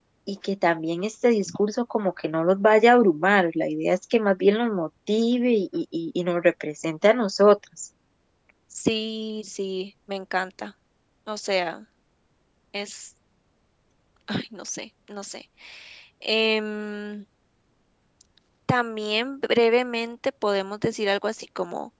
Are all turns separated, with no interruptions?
Yes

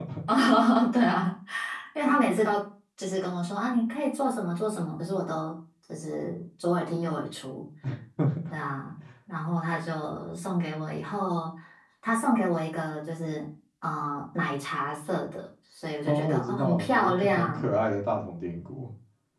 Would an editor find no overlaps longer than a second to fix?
No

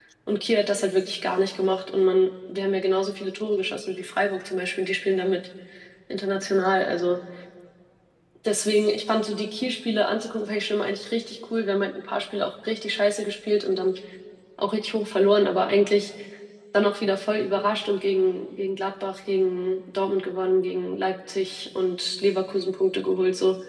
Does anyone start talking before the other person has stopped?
No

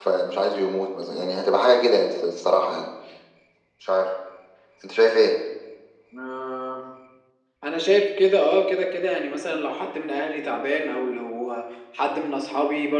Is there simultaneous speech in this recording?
No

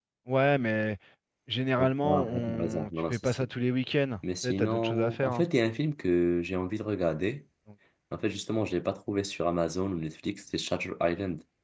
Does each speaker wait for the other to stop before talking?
No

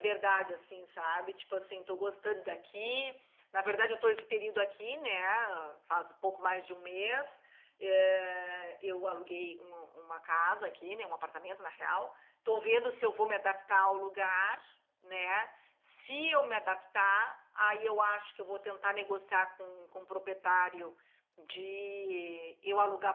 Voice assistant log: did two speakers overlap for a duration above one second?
No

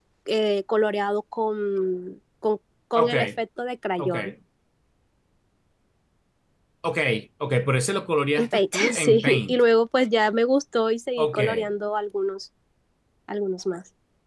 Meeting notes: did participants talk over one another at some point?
Yes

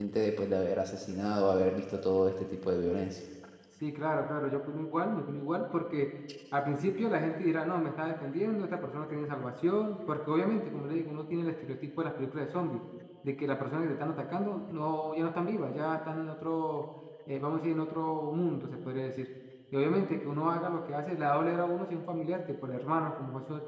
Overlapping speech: No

